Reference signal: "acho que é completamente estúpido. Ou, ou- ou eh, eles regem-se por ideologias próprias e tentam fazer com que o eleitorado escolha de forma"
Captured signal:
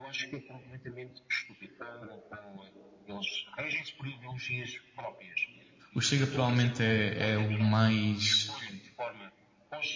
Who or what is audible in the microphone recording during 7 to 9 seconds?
both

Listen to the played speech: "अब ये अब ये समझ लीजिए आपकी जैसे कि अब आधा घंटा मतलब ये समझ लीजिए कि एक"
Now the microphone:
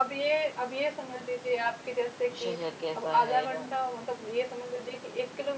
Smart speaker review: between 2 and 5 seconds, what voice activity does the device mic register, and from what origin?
both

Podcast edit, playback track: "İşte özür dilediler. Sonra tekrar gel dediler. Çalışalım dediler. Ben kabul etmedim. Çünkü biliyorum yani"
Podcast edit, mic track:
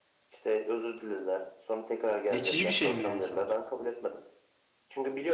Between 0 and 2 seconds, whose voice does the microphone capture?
echo only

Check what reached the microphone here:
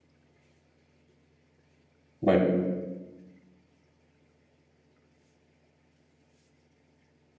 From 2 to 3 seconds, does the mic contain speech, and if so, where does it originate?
user only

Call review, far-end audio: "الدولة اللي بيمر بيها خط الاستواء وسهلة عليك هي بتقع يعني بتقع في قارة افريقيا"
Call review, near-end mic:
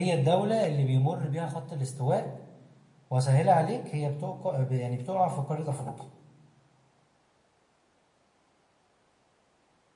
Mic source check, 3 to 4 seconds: echo only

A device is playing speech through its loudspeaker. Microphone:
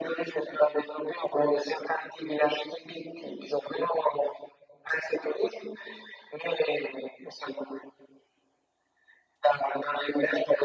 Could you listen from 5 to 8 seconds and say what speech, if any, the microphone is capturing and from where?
echo only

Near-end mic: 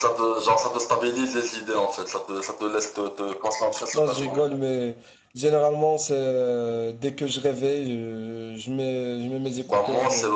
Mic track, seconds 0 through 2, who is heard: echo only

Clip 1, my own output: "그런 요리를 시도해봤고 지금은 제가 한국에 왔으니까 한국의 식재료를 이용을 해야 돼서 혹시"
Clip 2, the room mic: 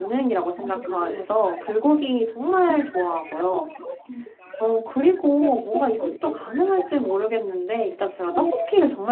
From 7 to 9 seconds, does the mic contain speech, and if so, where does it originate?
both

